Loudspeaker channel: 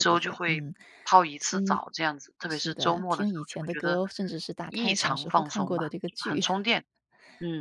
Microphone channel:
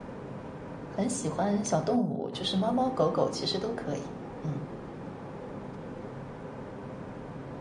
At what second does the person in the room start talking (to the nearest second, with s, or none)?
1 s